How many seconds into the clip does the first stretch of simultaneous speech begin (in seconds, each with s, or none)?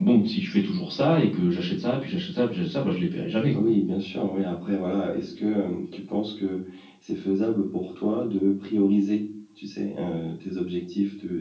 none